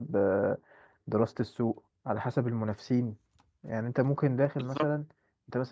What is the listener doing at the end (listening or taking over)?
listening